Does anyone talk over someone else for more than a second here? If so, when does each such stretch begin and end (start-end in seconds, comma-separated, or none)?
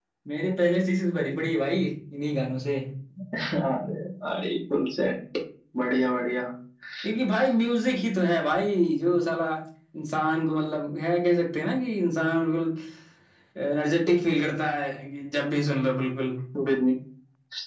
none